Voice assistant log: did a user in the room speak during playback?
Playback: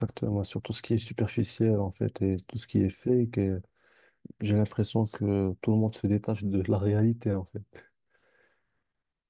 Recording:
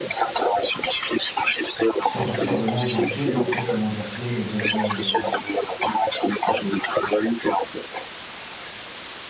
Yes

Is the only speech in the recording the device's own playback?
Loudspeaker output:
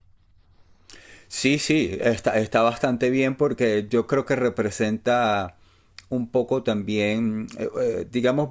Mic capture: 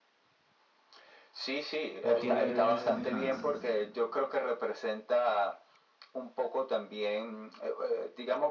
No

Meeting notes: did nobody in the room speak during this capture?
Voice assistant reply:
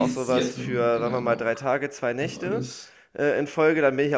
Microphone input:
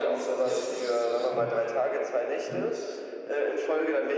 No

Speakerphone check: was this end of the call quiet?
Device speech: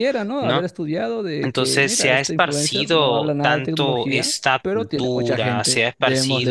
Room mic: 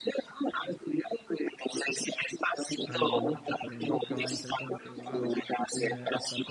No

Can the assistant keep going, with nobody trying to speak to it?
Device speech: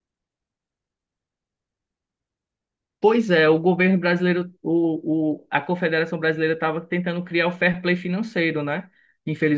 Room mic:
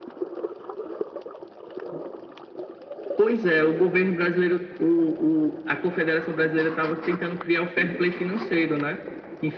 Yes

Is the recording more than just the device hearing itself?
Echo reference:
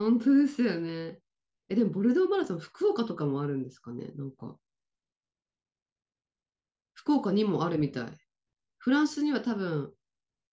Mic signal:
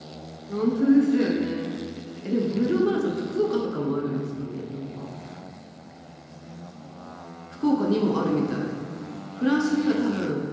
No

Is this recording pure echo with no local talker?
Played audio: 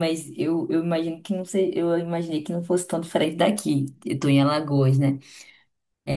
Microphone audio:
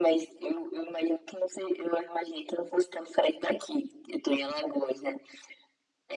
Yes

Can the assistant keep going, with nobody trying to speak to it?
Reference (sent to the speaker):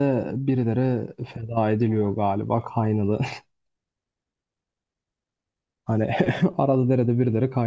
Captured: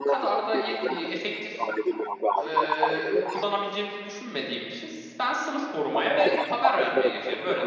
No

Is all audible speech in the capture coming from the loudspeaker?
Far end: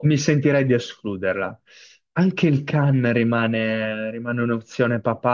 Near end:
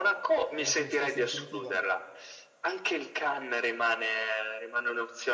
No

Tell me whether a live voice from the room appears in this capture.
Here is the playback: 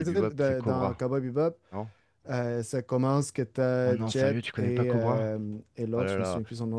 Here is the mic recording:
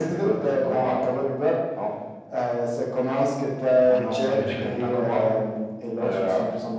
Yes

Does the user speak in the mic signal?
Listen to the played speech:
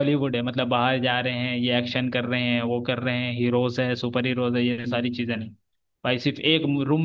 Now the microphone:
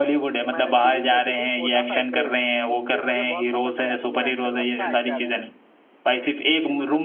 Yes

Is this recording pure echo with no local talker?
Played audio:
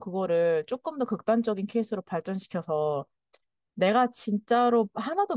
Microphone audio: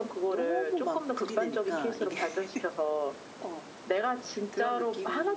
No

